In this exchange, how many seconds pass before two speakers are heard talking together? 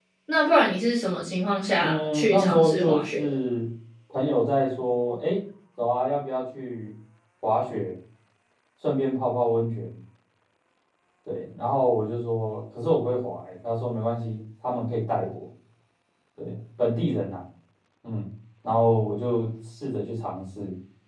1.8 s

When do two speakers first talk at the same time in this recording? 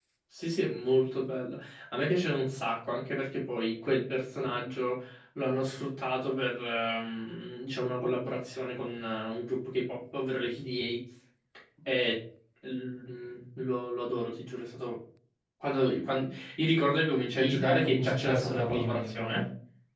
17.4 s

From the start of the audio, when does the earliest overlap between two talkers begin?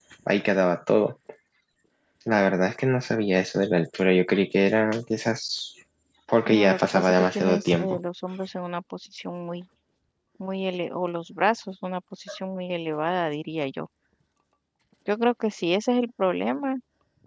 6.5 s

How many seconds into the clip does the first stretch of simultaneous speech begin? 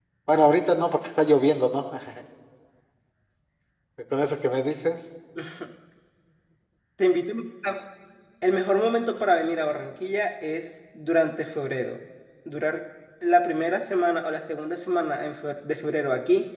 none

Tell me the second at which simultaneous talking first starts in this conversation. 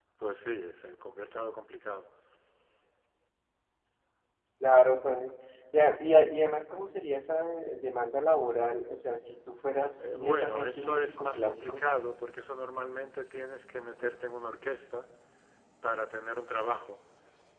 10.0 s

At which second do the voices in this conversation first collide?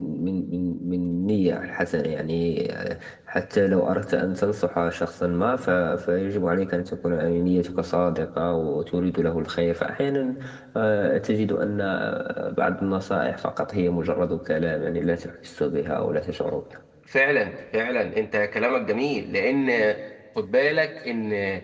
none

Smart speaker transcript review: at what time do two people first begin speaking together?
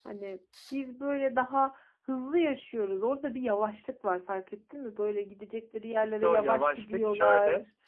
6.0 s

